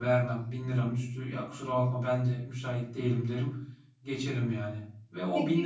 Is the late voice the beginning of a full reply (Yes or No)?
No